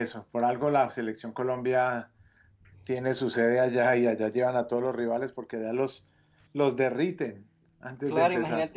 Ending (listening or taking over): taking over